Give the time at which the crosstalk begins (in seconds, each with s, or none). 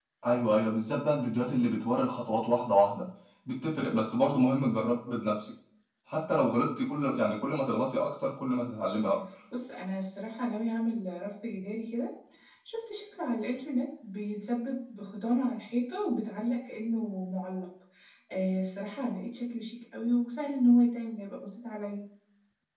none